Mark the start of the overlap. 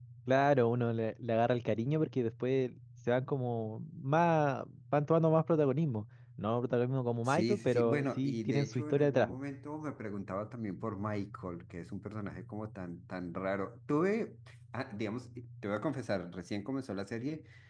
7.2 s

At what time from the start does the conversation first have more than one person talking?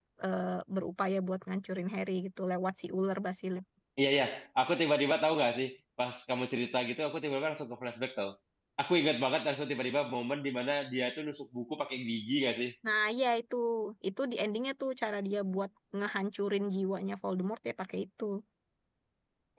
none

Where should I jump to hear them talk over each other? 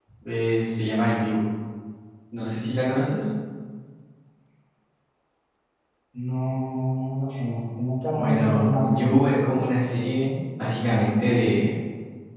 8.2 s

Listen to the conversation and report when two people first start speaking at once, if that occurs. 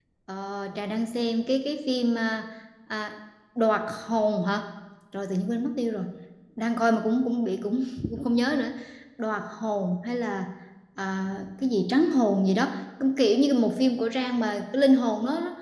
none

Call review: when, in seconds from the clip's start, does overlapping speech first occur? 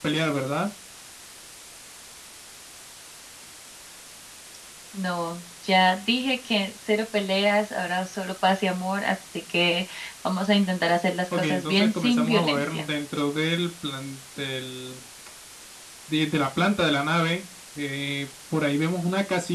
11.3 s

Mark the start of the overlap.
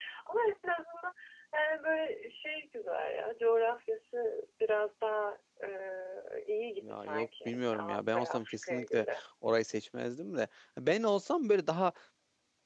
6.8 s

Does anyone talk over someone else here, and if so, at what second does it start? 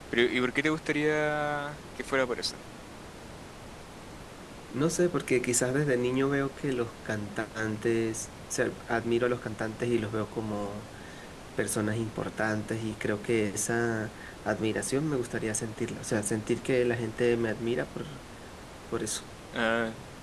none

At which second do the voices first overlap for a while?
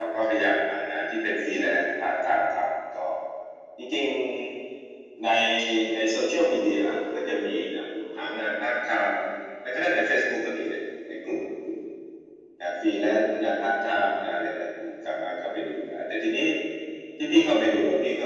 none

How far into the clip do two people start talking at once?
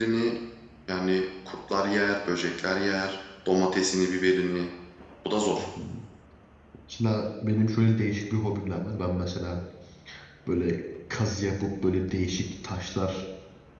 none

